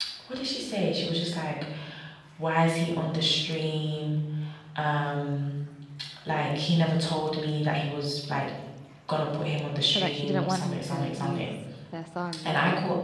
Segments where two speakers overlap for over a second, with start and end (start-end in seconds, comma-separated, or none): 9.9-11.5